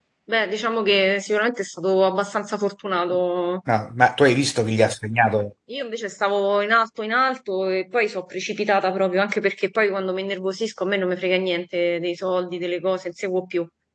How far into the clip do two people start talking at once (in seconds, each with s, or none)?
none